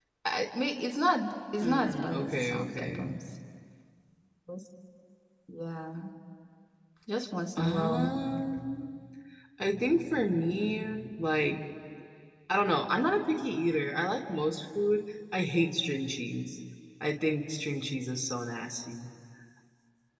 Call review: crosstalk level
present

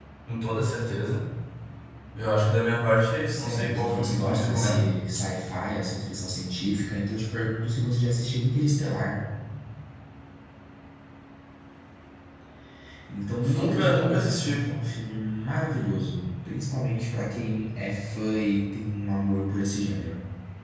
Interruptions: present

